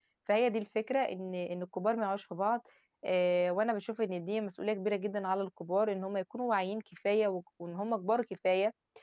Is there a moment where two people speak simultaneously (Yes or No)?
No